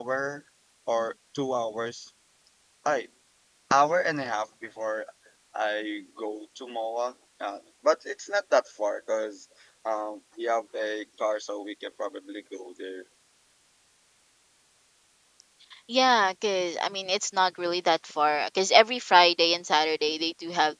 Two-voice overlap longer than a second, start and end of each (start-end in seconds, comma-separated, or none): none